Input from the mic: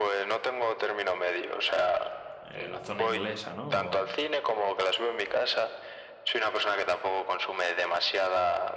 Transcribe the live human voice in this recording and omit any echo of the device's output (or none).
eh, la zona inglesa, ¿no? O,